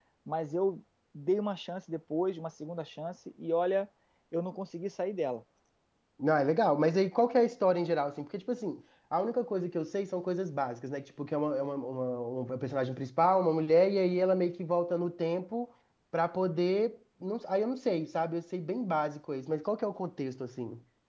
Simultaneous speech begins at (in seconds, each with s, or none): none